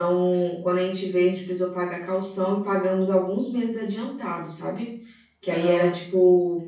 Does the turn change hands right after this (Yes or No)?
No